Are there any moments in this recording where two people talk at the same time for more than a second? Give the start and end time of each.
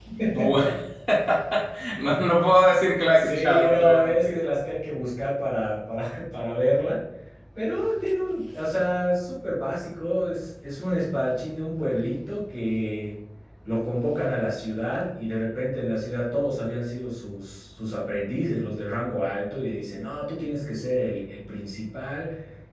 3.1-4.3

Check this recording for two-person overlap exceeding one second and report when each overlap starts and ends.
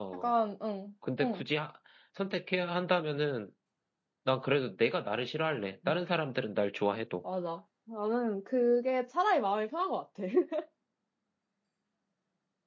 none

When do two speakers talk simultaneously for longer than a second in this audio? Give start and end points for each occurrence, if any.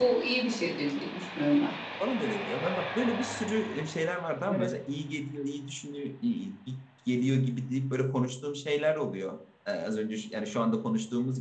none

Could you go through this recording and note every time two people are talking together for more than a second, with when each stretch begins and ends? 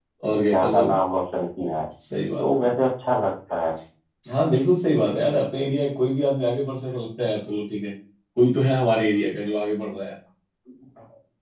none

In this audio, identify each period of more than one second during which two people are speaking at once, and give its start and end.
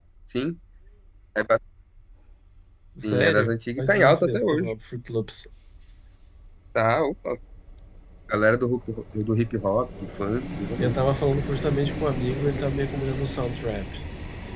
3.0-4.7

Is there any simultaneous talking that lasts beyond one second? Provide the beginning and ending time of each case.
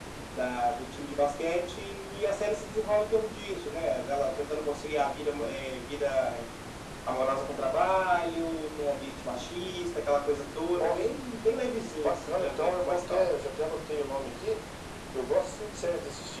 12.0-13.3

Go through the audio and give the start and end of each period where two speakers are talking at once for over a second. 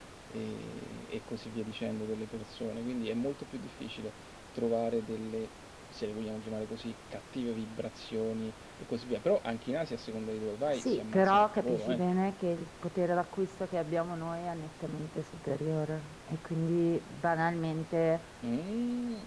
10.7-12.0

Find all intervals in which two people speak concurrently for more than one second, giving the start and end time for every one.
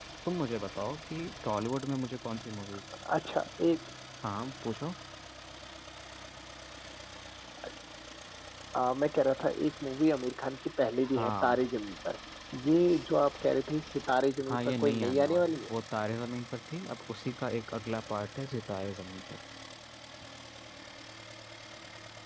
14.5-15.7

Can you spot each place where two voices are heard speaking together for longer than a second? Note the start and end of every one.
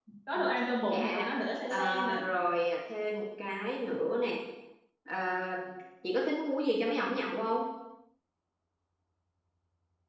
none

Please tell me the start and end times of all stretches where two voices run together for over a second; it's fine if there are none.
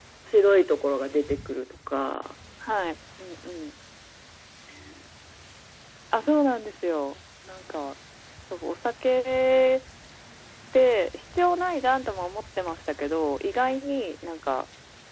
none

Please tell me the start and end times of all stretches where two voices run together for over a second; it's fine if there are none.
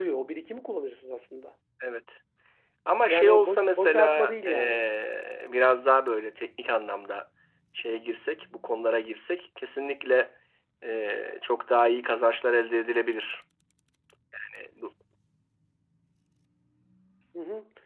3.1-4.8

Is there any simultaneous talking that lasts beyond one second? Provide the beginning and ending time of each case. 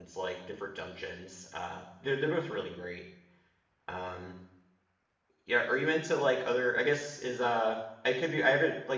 none

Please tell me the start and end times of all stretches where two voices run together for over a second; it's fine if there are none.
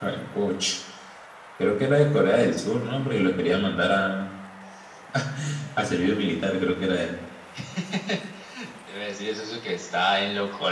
none

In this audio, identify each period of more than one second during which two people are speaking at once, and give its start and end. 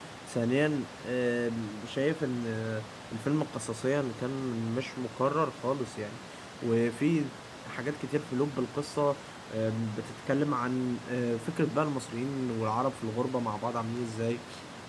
none

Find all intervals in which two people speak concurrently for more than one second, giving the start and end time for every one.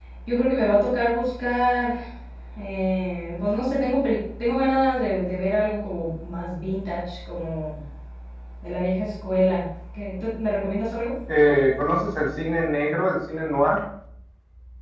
none

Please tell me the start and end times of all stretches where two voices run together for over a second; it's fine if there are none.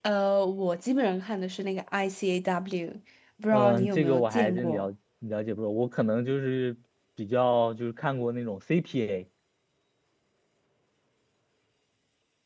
3.5-4.9

